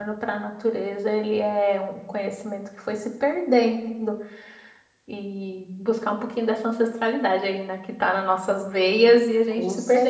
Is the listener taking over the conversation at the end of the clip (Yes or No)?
Yes